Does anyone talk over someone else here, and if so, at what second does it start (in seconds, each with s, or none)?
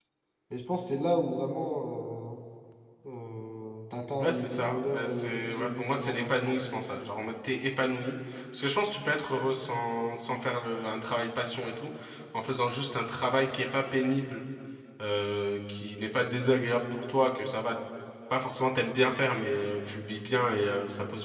4.2 s